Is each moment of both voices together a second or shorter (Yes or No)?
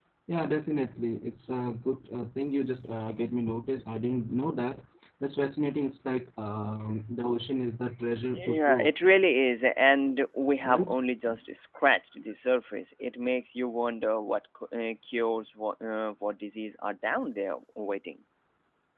Yes